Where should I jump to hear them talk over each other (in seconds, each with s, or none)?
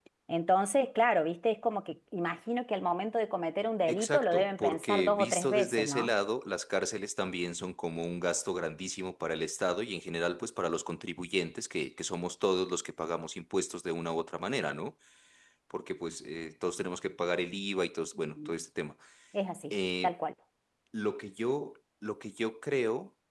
3.9 s